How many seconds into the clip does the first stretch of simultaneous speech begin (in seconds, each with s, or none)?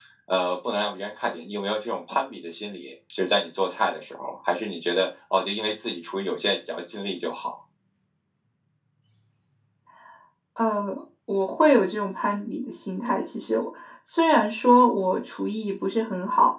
none